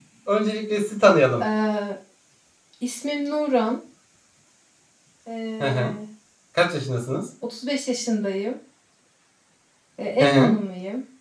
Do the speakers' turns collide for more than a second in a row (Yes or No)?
No